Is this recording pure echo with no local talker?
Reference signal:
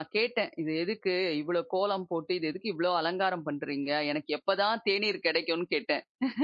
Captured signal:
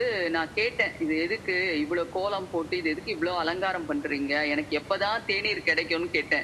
Yes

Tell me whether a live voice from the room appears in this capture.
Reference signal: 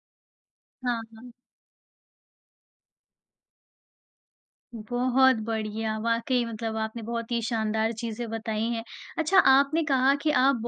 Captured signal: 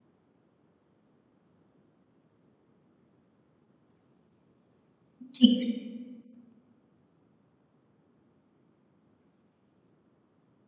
Yes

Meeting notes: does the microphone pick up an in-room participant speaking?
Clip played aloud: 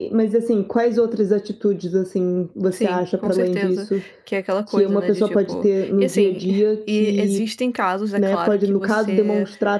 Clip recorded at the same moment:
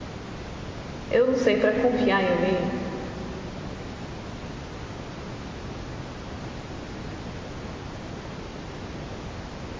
Yes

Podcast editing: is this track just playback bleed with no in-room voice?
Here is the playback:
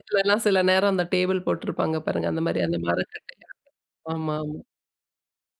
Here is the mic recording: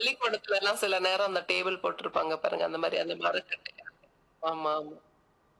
Yes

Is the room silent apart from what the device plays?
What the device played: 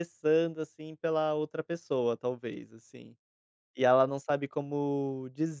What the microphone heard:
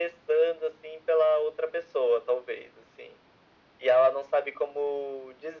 Yes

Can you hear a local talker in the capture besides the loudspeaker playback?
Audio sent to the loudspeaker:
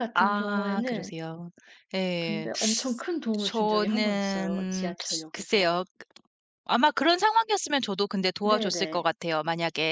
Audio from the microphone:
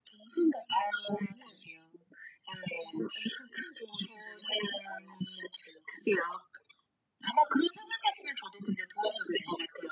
No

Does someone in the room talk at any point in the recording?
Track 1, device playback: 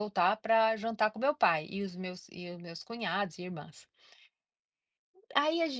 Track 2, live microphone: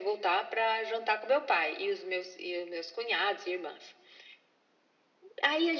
No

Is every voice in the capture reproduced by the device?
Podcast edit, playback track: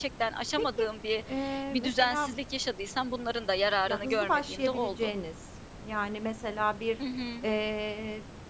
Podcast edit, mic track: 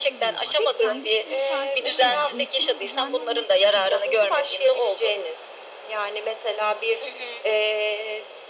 No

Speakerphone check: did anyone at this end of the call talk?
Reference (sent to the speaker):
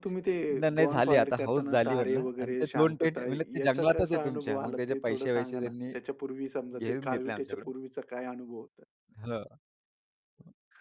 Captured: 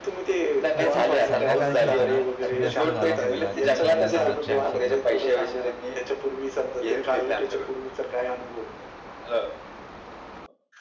Yes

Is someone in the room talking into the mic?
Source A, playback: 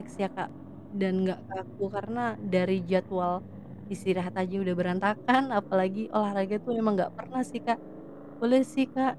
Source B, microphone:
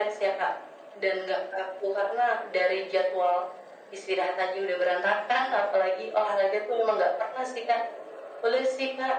No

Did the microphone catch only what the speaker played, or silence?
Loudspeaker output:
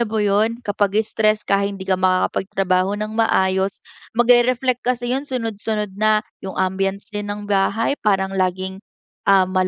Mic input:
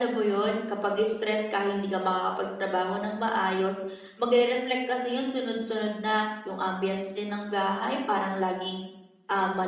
Yes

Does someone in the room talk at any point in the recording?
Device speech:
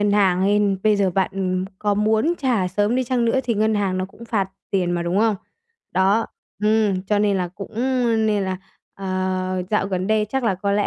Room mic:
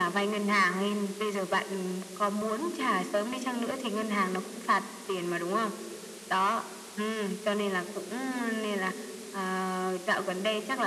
No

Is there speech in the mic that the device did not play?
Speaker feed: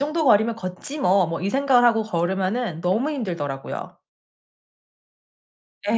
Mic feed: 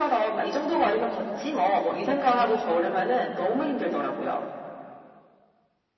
No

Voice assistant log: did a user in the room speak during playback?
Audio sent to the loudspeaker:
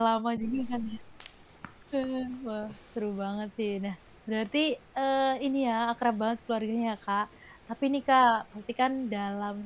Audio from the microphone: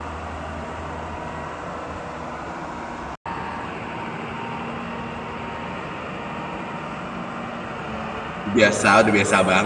Yes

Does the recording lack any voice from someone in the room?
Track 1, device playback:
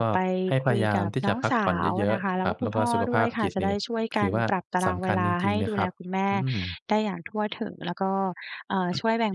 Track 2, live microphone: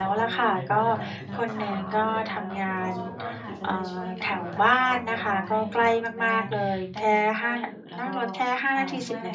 No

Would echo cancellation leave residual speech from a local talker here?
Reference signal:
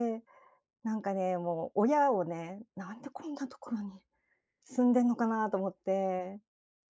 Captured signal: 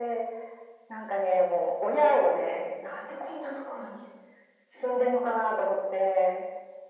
No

